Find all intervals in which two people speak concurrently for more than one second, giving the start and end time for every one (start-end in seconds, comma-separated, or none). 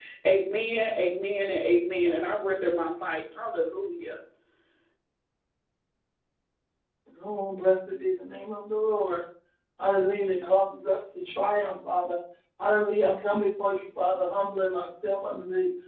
none